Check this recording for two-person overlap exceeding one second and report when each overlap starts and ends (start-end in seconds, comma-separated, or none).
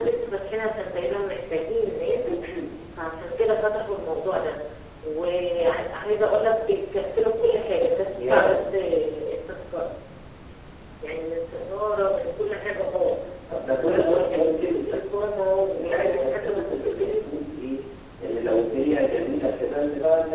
13.7-17.3